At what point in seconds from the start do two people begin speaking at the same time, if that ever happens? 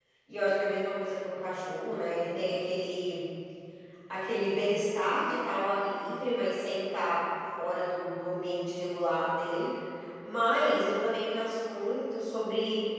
none

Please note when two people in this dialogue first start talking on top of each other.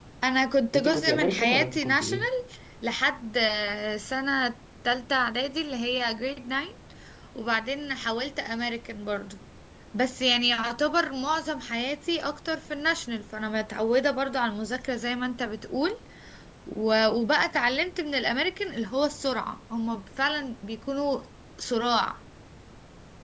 0.8 s

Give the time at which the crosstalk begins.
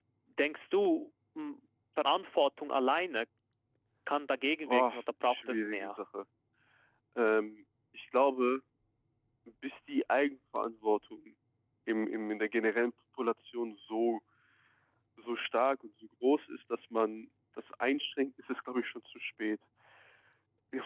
4.7 s

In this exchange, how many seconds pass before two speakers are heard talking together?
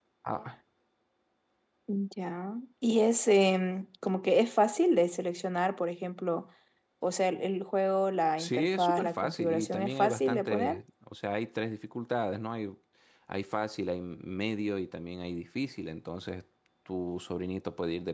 8.4 s

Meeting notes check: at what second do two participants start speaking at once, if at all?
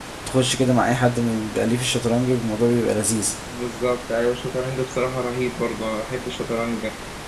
none

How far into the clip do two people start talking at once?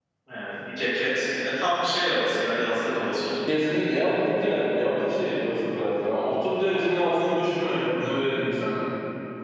none

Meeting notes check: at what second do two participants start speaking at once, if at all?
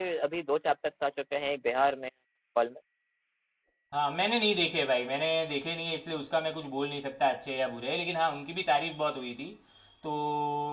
none

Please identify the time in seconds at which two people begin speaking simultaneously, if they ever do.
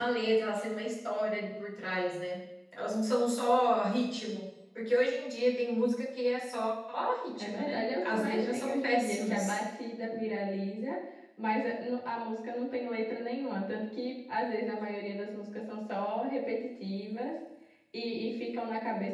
7.3 s

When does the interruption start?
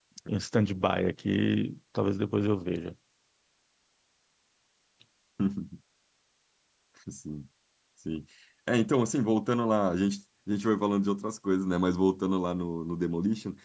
none

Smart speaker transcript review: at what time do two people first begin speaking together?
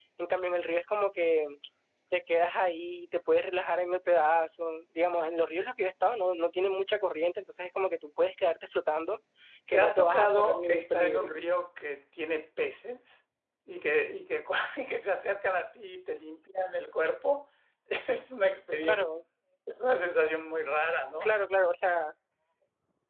9.7 s

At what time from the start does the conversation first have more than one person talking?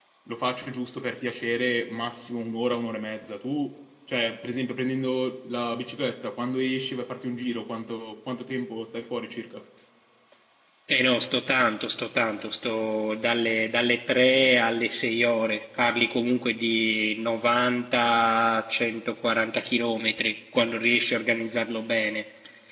none

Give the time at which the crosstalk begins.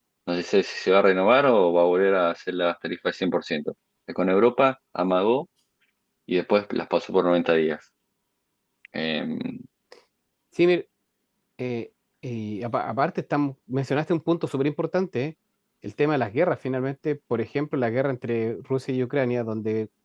none

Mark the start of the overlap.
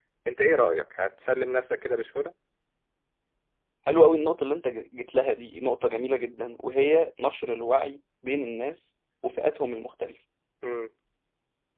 none

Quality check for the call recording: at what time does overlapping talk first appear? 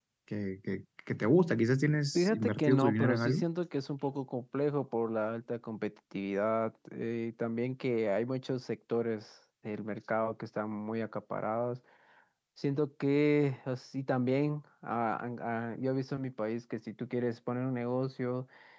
2.2 s

